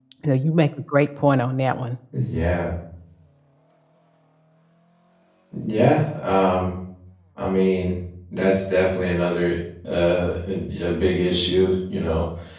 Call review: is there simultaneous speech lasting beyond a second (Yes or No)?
No